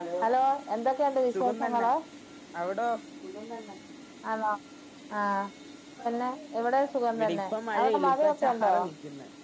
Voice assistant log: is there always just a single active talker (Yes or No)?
No